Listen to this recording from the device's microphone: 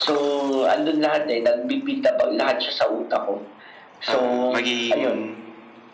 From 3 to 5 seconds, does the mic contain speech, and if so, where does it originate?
both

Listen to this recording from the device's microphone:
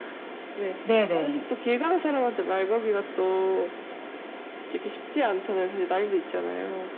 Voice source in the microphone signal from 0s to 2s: both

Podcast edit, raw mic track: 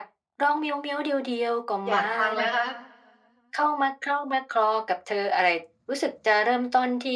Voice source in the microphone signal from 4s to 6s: echo only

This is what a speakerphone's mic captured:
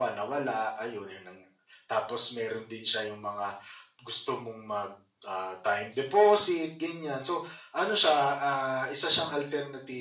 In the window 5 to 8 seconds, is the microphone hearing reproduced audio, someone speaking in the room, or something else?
echo only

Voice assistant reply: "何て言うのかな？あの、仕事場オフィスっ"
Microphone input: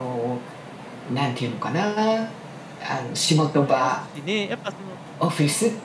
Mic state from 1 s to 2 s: echo only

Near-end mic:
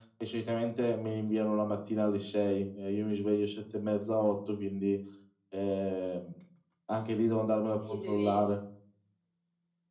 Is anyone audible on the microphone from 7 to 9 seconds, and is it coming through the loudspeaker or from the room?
both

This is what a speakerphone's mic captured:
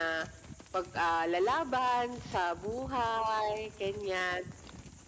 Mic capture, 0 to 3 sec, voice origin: echo only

